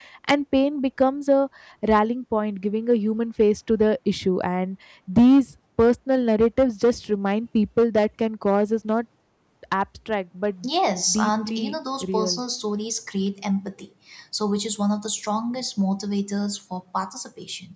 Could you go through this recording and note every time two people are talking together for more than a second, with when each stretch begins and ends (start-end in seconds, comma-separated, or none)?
11.1-12.4